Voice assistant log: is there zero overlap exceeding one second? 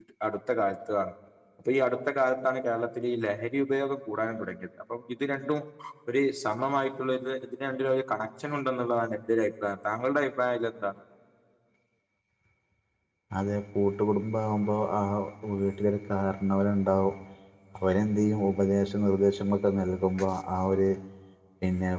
Yes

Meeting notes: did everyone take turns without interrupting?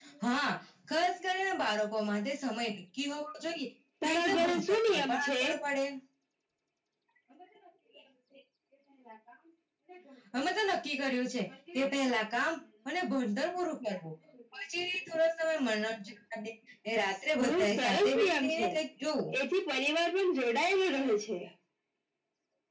No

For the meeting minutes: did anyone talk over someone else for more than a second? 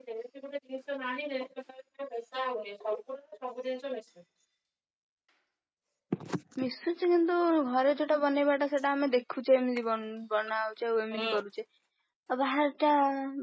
No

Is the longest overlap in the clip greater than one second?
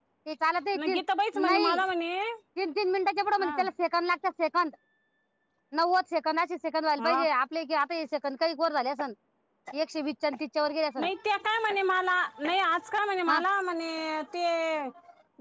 No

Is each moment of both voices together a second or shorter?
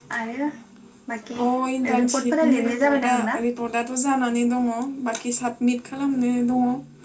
No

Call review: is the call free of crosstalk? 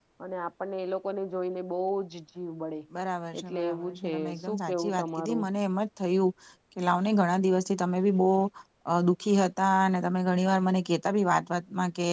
No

